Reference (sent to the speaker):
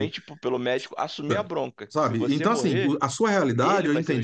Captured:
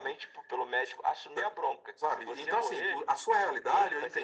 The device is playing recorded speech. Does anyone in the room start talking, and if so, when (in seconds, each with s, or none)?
none